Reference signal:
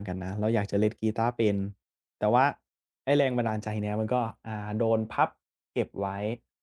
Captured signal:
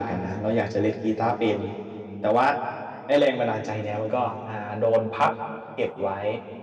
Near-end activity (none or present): none